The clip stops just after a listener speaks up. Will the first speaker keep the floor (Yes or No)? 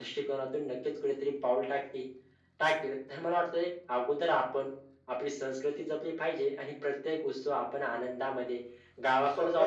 Yes